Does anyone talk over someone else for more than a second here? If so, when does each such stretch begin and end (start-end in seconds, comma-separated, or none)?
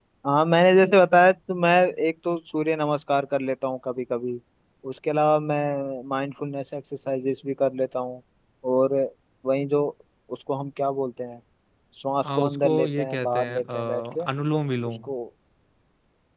12.3-14.2